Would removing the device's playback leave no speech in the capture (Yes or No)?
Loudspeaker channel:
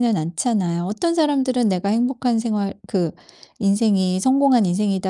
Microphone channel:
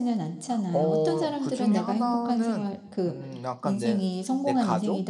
No